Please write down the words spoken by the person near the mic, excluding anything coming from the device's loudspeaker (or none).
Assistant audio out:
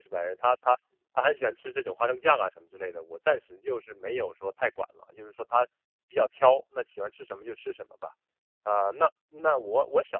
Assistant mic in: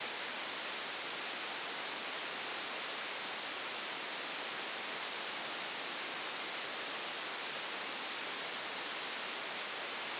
none